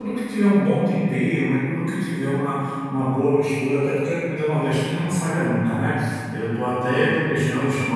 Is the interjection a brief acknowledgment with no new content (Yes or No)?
Yes